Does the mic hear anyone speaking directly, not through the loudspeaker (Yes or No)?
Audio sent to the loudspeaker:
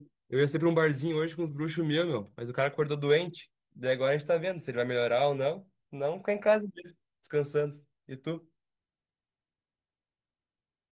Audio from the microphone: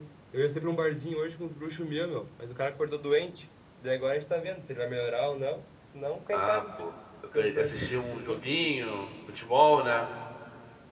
Yes